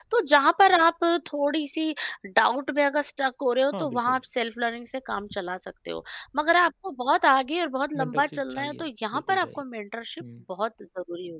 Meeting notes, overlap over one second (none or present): present